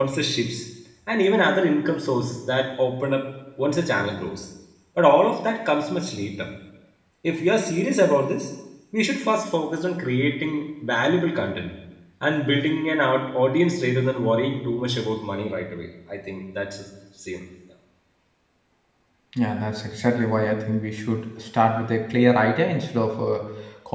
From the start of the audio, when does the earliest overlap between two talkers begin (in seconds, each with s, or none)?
none